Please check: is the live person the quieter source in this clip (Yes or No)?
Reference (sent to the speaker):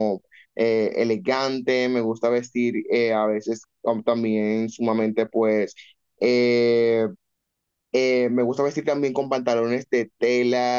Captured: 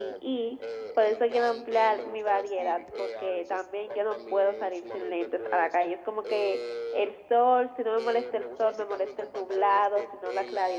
No